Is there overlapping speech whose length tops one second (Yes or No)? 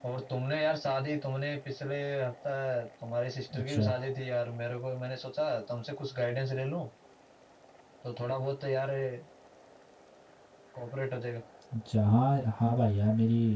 No